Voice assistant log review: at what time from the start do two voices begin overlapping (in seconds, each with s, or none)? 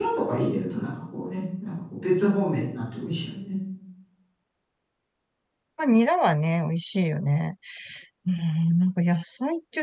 none